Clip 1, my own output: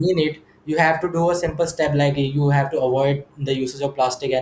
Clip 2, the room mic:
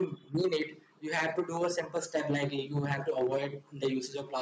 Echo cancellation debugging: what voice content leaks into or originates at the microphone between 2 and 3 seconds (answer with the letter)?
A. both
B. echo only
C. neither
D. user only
B